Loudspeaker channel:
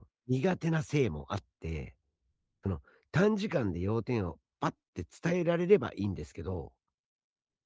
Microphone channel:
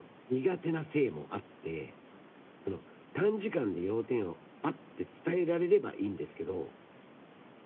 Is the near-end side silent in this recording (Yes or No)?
Yes